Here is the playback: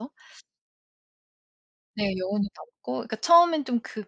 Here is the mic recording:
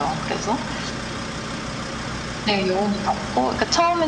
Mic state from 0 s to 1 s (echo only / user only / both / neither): echo only